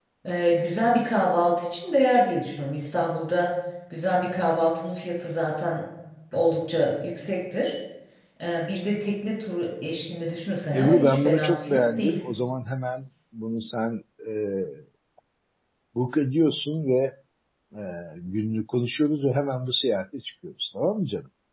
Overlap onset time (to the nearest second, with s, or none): 11 s